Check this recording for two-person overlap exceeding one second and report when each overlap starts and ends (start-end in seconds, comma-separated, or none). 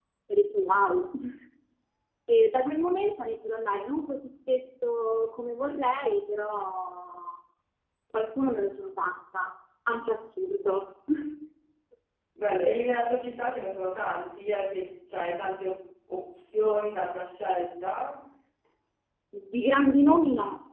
none